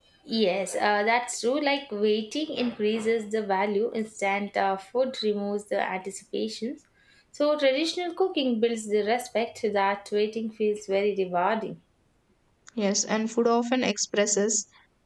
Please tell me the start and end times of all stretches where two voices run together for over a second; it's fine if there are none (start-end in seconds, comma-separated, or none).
none